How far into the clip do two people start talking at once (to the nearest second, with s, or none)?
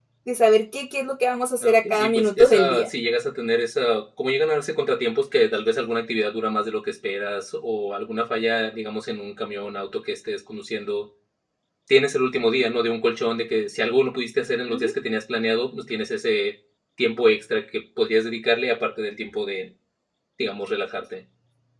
2 s